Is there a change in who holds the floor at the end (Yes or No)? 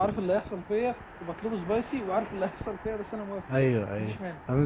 Yes